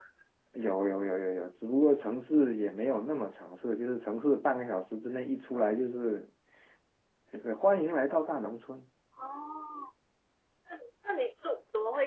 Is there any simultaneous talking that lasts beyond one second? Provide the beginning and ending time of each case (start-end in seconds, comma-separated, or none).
none